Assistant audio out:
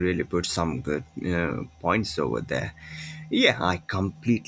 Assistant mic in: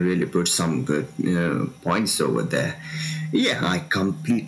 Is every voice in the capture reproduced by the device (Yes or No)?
Yes